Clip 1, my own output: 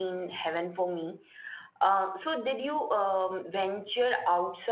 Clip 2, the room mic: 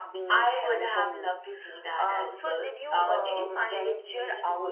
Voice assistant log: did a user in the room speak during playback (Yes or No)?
Yes